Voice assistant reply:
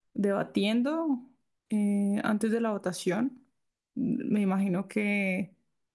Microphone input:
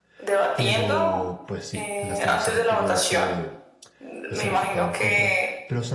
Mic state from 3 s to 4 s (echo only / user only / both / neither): both